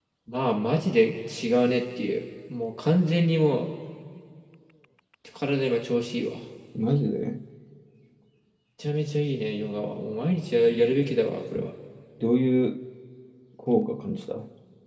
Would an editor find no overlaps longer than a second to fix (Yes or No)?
Yes